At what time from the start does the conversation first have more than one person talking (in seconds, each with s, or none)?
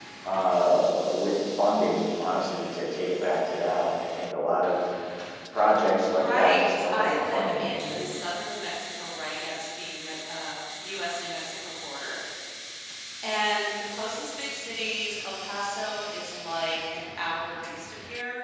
6.1 s